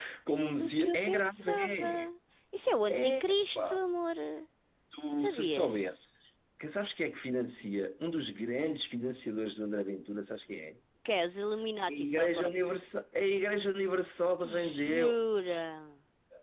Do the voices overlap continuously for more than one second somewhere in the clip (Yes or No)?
Yes